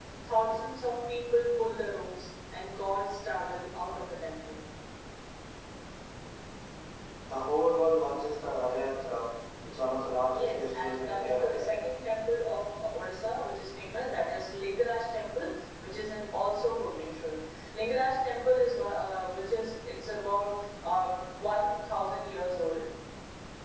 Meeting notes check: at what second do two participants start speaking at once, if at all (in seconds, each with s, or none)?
10.3 s